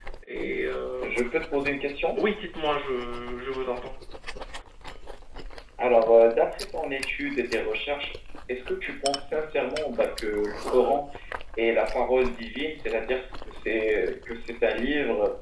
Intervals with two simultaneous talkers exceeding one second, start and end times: none

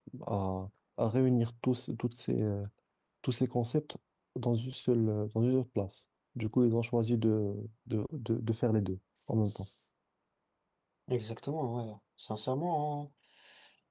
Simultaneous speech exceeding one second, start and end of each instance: none

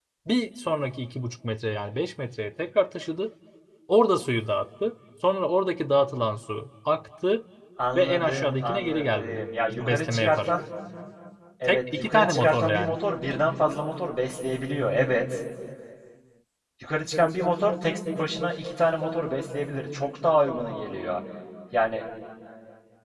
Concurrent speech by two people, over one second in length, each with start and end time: 8.0-10.5, 11.7-13.0

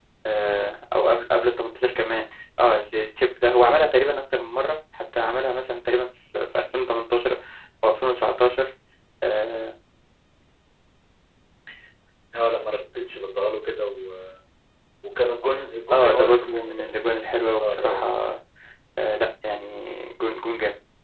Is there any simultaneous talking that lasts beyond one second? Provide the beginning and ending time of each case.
15.9-18.1

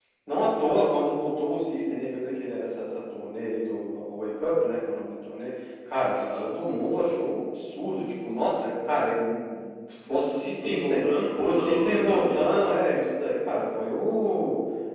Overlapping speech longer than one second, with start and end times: 10.1-12.4

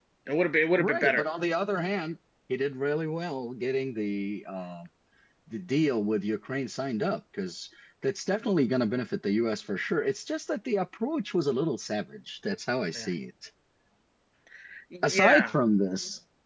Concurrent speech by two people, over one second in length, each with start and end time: none

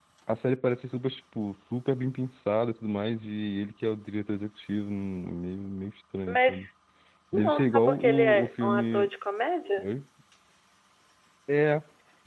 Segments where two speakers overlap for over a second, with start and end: 7.3-9.1

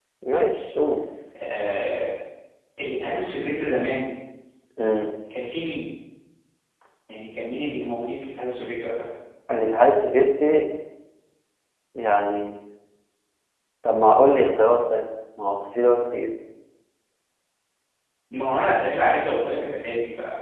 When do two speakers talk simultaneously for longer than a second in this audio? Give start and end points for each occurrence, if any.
none

